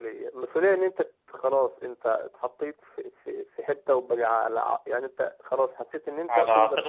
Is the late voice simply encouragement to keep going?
Yes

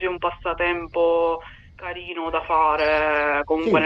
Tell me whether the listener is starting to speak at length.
No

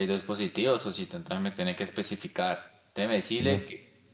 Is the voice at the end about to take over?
No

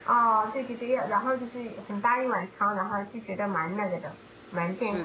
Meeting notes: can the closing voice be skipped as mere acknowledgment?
No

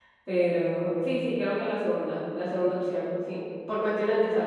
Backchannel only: Yes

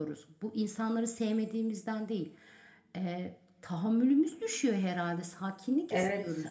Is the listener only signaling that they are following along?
No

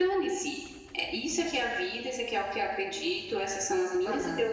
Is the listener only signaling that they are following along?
Yes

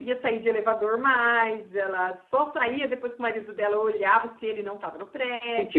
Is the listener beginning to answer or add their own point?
Yes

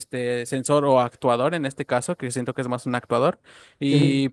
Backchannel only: Yes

